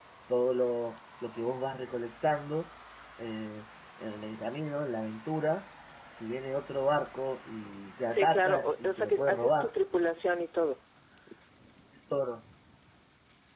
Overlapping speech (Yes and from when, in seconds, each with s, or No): Yes, from 8.1 s